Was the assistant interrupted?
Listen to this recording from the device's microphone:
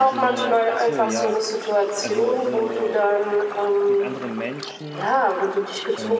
Yes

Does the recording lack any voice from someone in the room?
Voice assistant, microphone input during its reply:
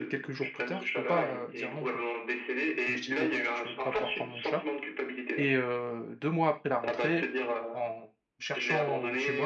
No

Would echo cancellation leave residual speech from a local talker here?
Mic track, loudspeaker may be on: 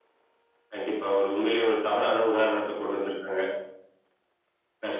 No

